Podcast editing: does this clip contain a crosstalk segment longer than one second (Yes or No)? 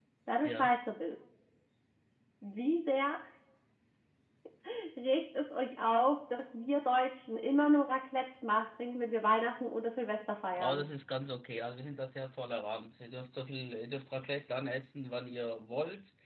No